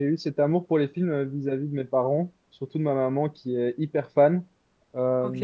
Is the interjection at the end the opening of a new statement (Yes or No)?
No